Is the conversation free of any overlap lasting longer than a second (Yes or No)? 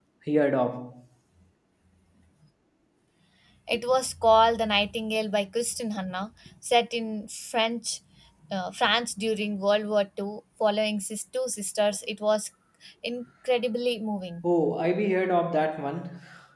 Yes